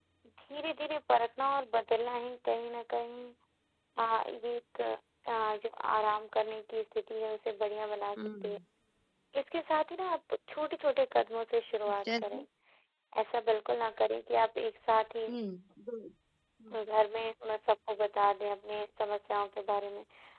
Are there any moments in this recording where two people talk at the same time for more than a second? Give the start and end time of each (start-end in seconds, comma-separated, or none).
none